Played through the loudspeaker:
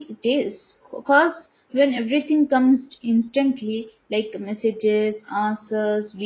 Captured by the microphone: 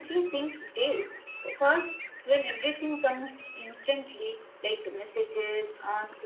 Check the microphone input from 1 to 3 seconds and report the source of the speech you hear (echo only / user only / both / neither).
echo only